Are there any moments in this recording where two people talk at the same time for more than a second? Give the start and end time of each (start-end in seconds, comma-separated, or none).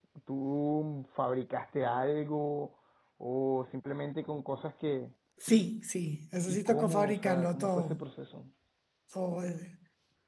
6.5-8.0